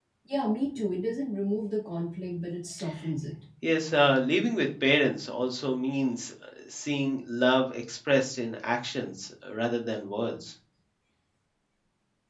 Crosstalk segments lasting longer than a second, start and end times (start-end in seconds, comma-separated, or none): none